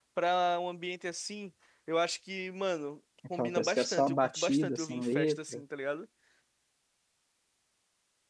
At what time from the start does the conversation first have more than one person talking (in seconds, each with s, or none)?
3.2 s